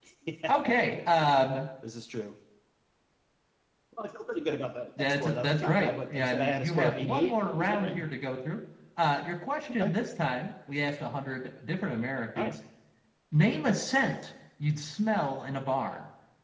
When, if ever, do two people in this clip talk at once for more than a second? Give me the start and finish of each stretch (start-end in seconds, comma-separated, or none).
5.0-8.0